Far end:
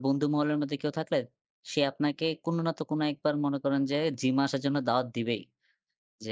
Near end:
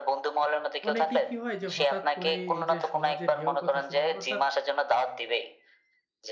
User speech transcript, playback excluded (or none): অনেকেই কি হয় যে হঠাৎ করে এই যে সমাজের হেয় কথা শুনে অর্থাৎ